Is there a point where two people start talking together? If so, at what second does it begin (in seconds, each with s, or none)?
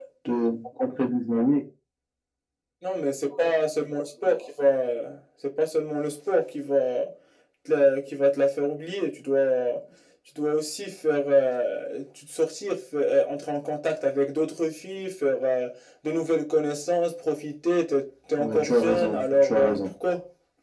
18.4 s